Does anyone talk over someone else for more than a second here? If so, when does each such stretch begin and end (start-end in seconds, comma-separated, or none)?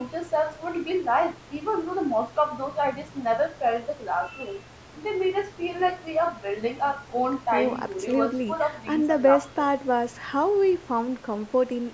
7.5-9.7